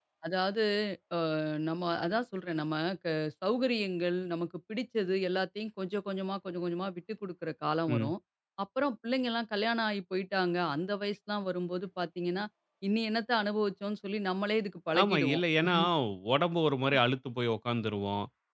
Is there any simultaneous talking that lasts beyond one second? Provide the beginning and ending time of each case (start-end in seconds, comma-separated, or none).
none